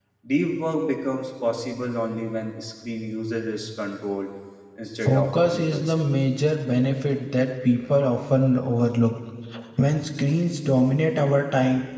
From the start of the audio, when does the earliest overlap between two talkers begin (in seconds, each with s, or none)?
5.0 s